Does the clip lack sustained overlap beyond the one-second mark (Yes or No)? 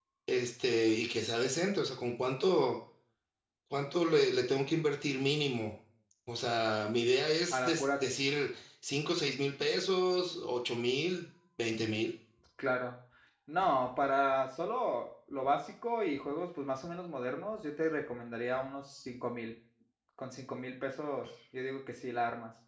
Yes